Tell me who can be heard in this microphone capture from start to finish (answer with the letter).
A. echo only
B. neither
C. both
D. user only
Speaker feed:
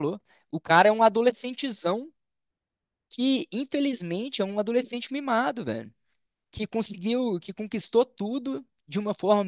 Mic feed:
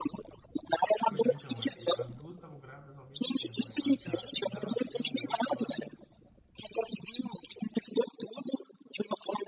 C